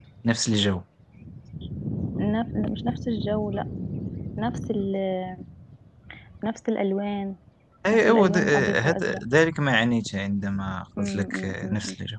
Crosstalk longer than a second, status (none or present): present